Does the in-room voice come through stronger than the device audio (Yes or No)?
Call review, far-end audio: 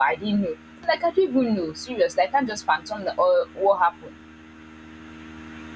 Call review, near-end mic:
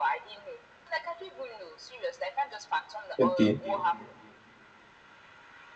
Yes